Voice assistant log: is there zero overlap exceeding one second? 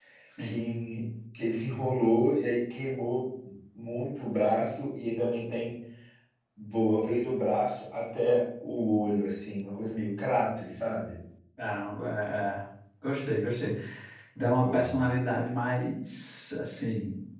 Yes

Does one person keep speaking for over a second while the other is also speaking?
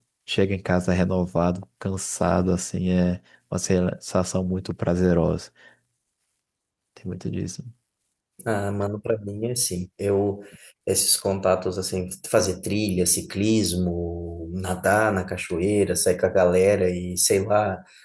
No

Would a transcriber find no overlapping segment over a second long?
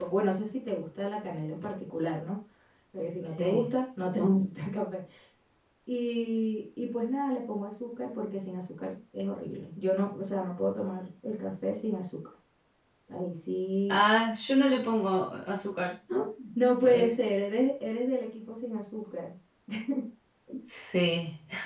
Yes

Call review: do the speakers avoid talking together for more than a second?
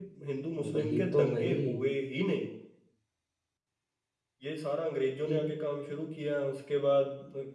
No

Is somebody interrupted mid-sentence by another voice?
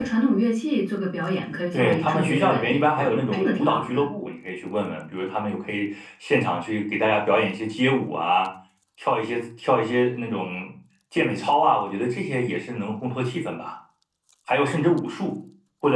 Yes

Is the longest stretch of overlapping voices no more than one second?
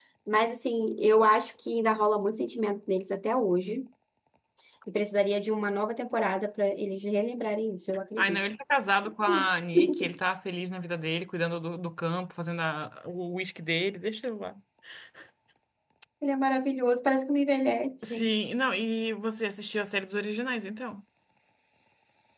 Yes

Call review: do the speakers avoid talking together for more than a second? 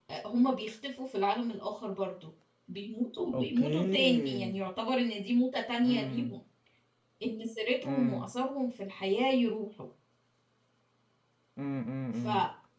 No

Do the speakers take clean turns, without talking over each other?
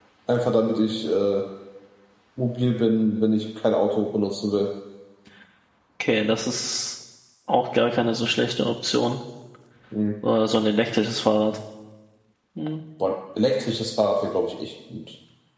Yes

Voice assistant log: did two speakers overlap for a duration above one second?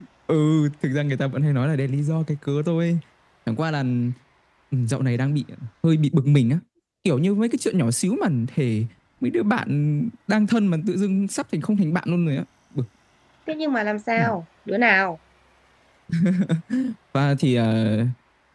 No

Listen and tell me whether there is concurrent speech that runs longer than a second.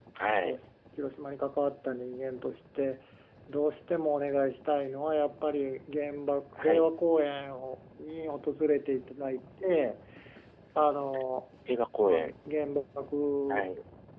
No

